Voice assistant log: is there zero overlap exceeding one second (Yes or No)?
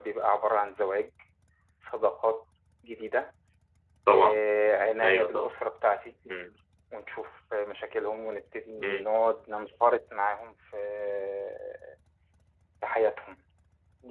Yes